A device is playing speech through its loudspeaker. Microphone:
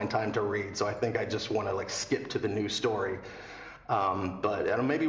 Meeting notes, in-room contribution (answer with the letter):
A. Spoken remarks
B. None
B